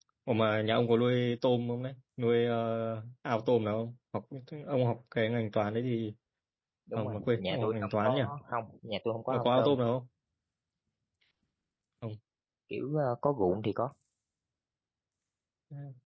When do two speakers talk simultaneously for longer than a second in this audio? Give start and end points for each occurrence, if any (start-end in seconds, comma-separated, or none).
7.0-8.2